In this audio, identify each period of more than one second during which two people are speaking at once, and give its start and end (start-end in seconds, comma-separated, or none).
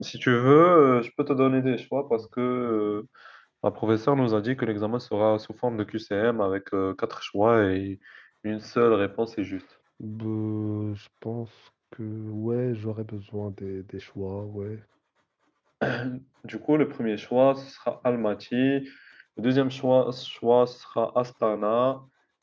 none